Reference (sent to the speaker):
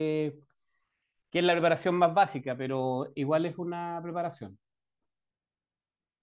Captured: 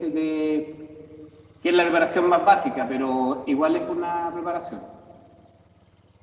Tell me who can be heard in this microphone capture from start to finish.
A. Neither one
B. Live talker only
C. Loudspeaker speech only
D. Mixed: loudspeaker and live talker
C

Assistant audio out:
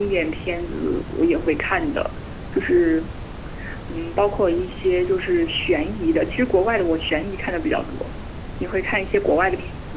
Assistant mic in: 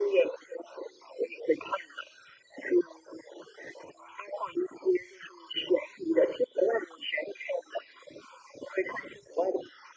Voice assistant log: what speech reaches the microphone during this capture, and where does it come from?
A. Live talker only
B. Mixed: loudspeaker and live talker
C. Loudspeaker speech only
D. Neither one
C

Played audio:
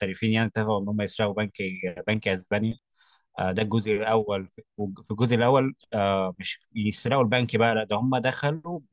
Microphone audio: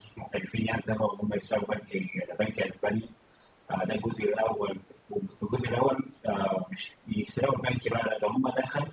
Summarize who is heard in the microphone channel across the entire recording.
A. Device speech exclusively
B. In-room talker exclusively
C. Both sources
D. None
A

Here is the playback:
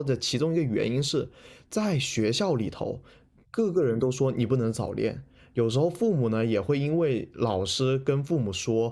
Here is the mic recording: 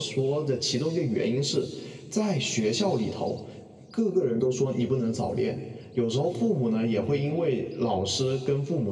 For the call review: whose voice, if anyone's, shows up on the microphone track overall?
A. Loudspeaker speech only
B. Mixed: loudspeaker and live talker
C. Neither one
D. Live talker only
A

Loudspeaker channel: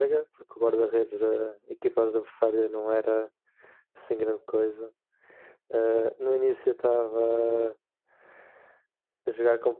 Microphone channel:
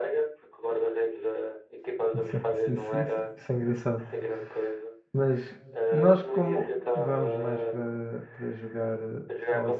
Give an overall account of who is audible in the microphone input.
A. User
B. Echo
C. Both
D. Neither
C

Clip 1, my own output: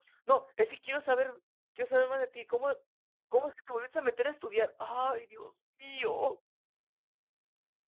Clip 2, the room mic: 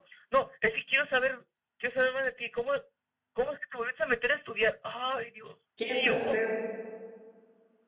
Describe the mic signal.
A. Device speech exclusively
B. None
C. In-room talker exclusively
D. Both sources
D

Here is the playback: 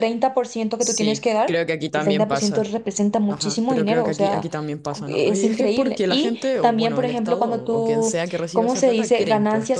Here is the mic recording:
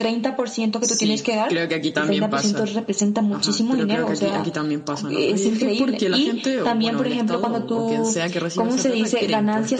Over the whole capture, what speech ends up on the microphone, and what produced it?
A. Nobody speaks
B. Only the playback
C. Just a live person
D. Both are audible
B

